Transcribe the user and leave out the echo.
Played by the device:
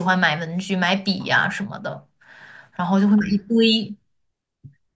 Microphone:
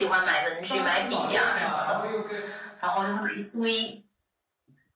当时早恋了，然后又跟

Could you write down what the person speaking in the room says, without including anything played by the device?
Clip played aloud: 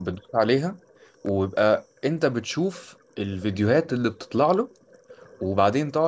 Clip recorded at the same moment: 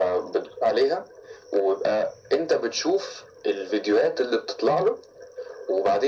none

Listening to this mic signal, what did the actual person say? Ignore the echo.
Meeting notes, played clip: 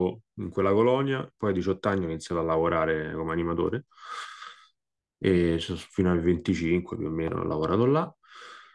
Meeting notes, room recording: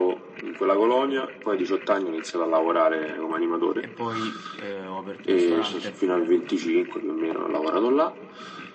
E poi eh, ho aperto un ristorante

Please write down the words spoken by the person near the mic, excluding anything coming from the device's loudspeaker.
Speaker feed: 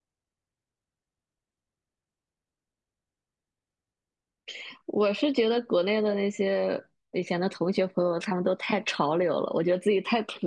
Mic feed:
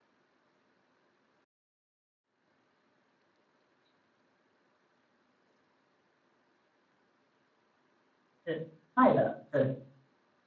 是爱的，对

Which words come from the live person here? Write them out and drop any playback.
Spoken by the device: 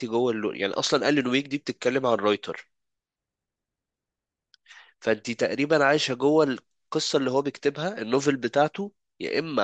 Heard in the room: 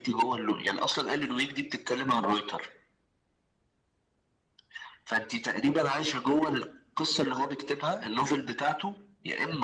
none

